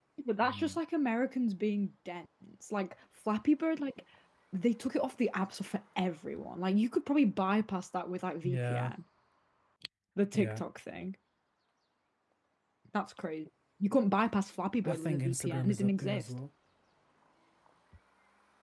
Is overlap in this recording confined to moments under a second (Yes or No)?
No